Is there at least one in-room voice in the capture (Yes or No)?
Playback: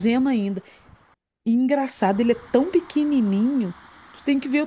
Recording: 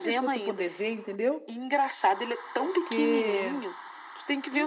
Yes